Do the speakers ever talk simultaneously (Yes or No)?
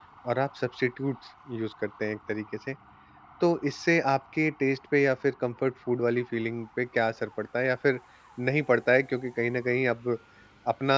No